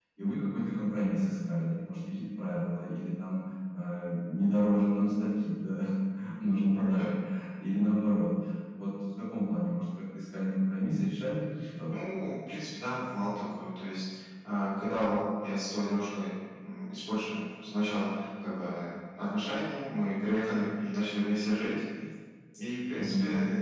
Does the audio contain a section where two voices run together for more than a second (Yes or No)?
No